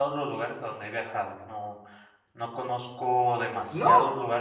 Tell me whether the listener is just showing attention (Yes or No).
Yes